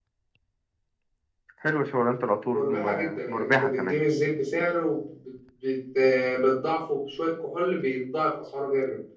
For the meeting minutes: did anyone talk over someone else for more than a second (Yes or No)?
Yes